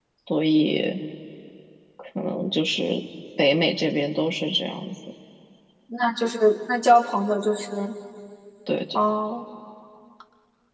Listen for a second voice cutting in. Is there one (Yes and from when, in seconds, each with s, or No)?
No